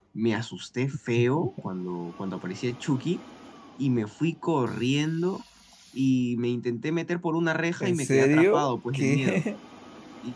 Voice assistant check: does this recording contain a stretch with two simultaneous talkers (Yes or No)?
Yes